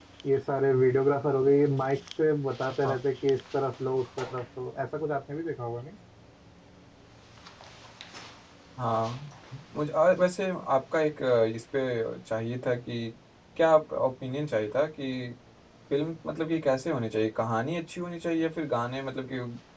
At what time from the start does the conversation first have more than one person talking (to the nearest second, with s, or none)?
none